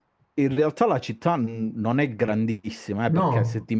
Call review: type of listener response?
listening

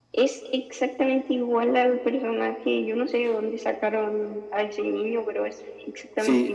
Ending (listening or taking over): taking over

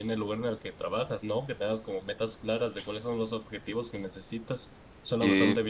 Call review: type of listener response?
taking over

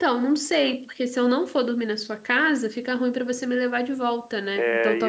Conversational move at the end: taking over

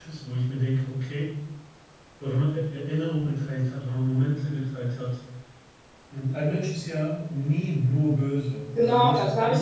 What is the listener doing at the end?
taking over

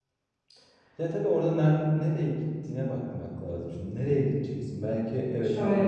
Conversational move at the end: taking over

